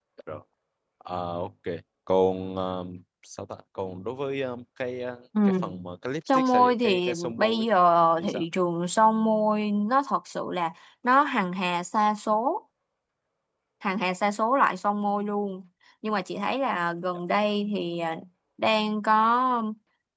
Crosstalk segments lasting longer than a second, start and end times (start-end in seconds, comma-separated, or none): 6.3-7.7